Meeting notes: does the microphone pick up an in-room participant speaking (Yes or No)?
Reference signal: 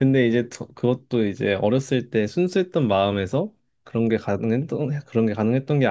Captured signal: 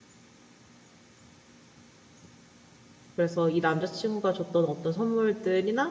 Yes